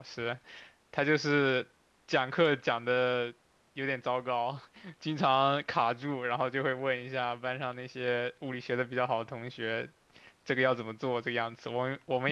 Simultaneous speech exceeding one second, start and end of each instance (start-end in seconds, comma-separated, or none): none